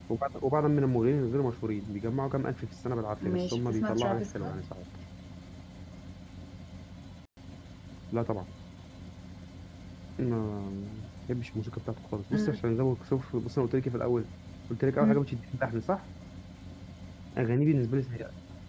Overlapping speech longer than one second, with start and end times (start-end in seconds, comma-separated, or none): 3.2-4.6